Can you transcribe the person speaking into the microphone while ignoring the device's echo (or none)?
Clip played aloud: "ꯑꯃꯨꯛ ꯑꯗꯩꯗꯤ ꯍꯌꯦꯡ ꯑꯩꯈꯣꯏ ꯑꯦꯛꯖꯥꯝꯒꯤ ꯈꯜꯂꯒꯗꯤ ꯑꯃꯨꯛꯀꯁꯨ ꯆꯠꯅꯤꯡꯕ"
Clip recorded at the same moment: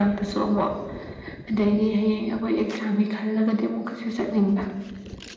none